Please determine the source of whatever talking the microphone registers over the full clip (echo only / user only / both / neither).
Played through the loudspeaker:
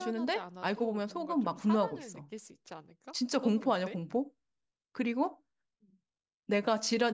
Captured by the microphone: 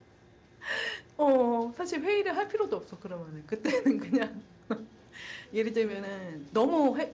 user only